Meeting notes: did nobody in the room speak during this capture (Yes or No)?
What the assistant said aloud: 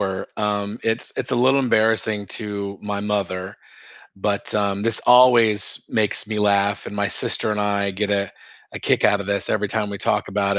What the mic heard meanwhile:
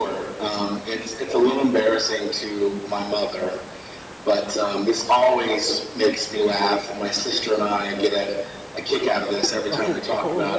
No